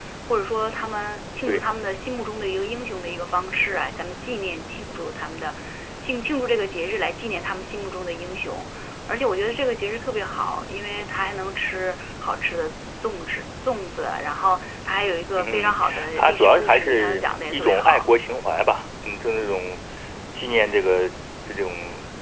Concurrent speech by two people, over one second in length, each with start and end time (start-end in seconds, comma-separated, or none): 15.4-18.1